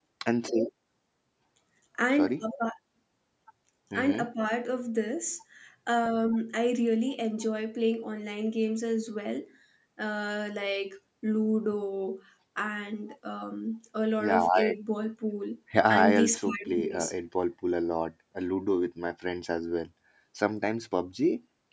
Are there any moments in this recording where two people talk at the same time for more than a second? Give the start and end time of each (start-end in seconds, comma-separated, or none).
15.9-17.1